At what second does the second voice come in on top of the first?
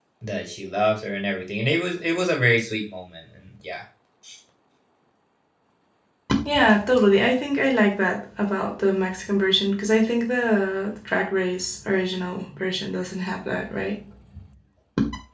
none

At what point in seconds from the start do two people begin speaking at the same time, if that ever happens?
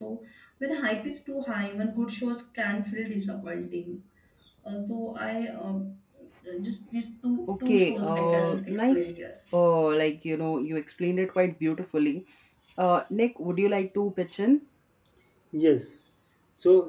7.5 s

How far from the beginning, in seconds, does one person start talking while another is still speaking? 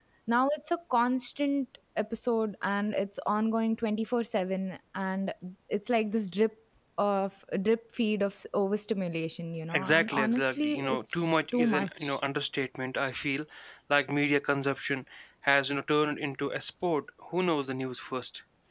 9.7 s

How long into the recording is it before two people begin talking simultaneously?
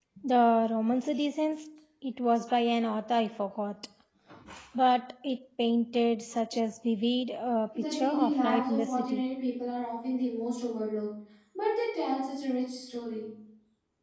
7.7 s

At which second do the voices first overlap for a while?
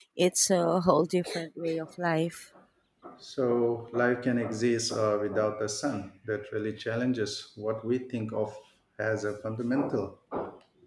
none

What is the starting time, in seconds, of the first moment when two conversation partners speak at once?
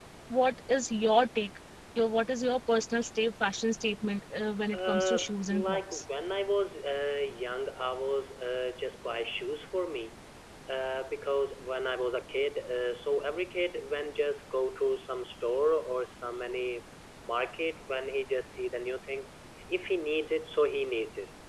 4.7 s

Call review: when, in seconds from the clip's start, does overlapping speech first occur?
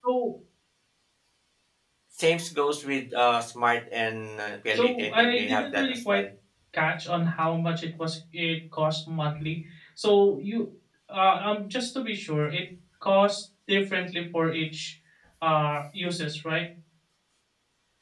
4.7 s

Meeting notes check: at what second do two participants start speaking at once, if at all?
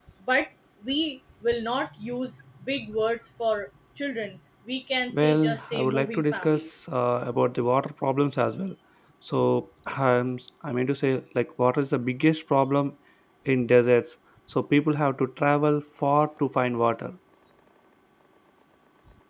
5.1 s

